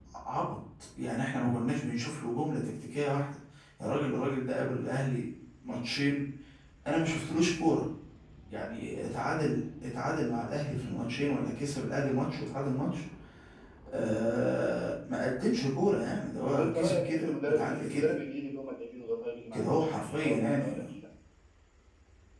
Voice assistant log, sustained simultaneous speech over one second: present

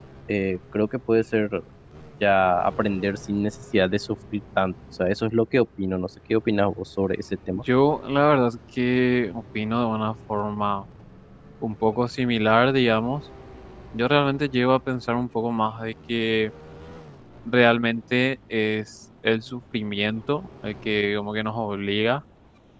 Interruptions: none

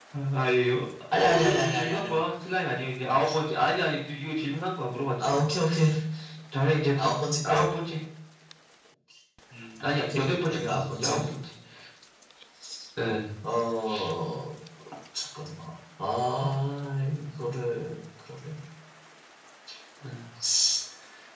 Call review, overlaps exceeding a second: present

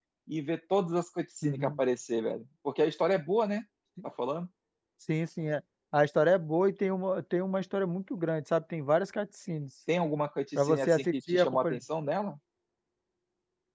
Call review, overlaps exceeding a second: present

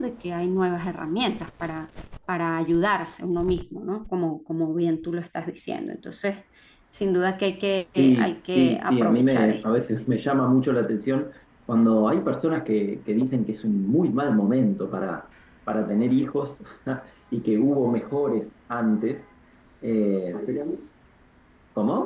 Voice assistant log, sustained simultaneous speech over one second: present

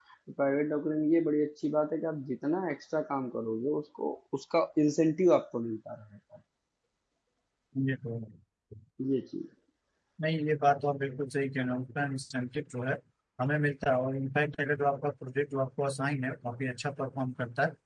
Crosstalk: none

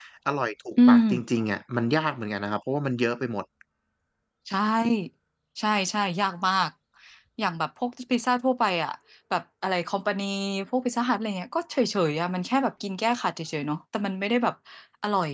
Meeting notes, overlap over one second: none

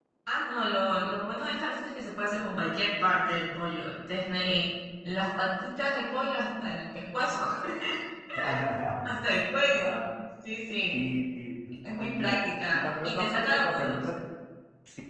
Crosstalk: present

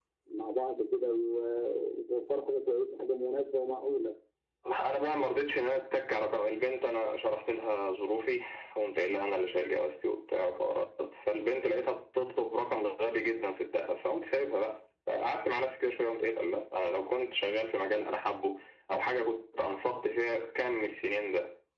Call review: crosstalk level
none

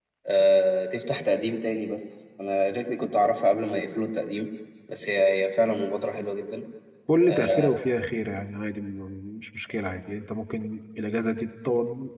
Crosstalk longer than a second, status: none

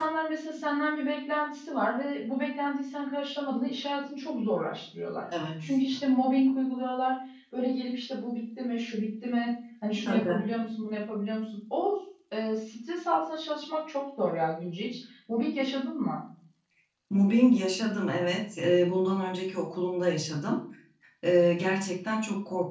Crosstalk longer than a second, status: none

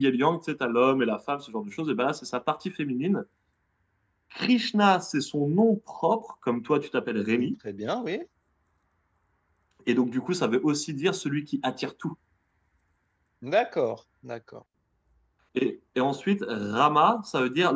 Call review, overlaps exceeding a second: none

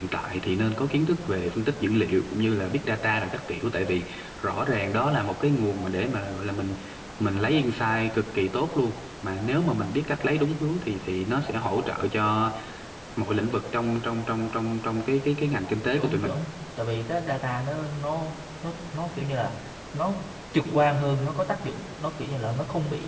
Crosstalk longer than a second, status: none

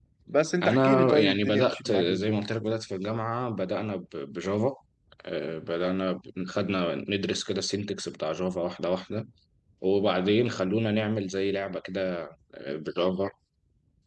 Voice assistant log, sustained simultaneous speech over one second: present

